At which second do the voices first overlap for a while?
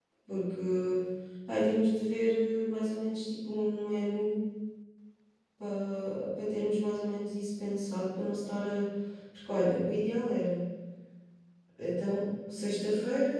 none

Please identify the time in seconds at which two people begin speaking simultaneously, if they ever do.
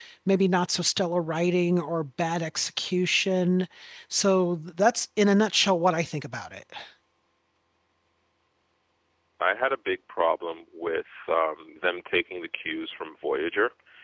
none

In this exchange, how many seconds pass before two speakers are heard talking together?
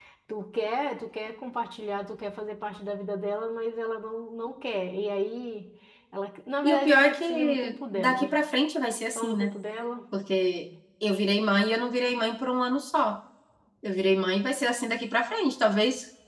6.6 s

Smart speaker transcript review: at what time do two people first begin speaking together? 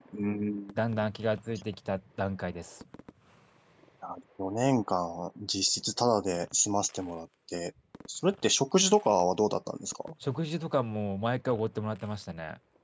none

